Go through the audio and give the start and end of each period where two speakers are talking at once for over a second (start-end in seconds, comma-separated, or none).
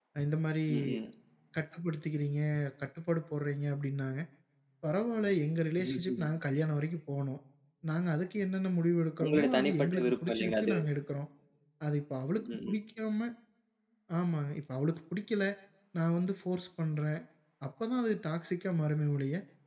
9.2-10.8